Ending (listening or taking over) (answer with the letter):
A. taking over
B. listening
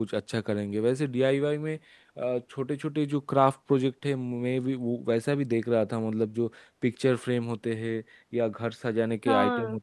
B